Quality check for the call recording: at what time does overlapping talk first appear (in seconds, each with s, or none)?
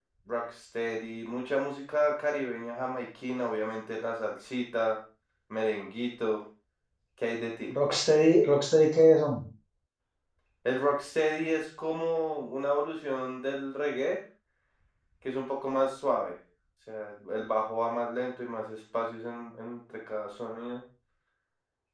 none